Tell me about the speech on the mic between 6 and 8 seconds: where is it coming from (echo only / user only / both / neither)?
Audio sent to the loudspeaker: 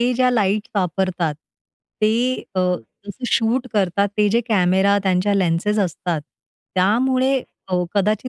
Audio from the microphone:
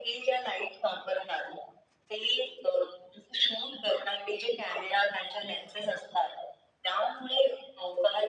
echo only